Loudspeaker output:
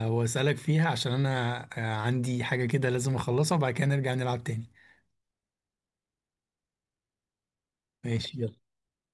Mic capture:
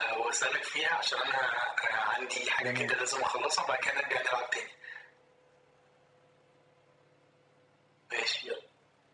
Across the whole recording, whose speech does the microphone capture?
both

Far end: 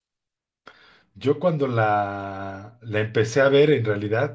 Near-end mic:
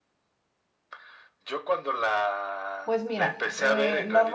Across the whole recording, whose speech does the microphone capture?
both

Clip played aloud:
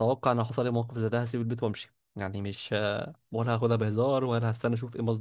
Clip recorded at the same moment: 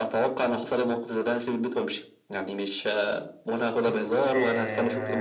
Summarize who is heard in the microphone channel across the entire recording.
both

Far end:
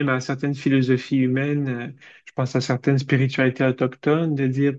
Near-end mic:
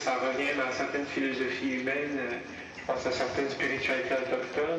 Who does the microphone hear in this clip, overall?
echo only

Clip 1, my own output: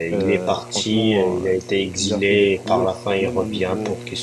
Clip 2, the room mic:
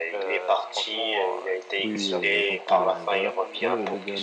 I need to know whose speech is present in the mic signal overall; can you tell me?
both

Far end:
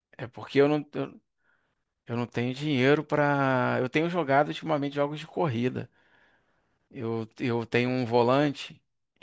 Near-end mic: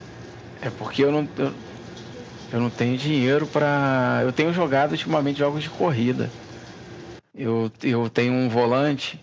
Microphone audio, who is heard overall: echo only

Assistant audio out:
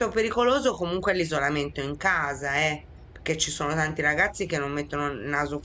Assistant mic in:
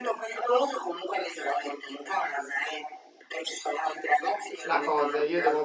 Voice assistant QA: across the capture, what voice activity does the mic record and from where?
both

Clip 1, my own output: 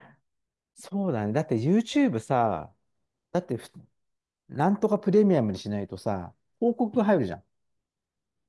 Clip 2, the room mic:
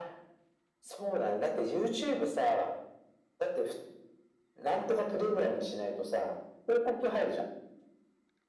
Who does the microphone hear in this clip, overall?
echo only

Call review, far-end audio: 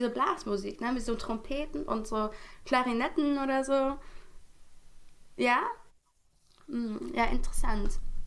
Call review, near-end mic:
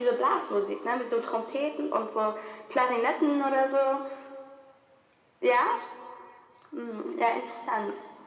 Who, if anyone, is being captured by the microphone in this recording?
echo only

